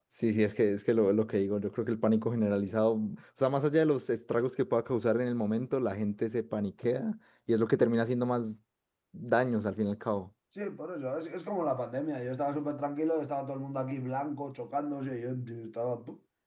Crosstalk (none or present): none